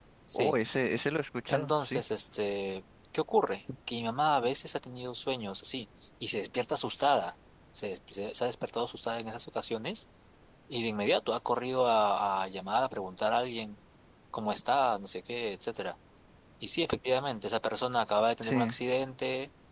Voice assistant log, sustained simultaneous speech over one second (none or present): none